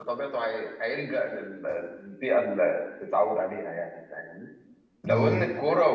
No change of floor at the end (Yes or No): Yes